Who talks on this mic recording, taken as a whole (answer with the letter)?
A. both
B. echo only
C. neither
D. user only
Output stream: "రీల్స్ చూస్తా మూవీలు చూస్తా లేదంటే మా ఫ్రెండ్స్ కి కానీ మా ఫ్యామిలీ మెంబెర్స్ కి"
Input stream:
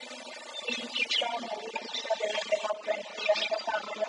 B